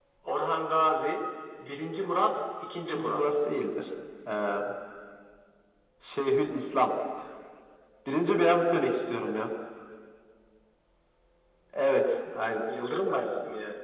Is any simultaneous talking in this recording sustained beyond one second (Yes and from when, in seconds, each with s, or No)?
No